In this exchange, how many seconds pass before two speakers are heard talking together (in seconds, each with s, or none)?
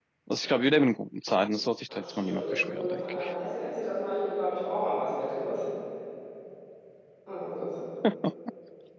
1.9 s